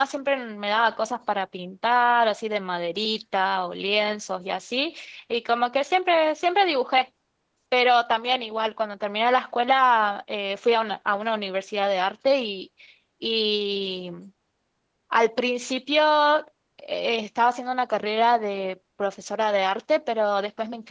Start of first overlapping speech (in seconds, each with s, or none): none